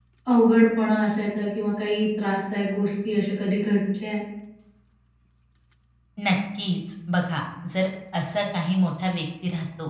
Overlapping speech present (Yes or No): No